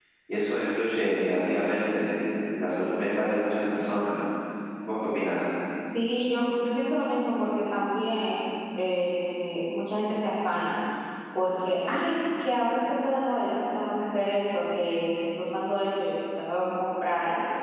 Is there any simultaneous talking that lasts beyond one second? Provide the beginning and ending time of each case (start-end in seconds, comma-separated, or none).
none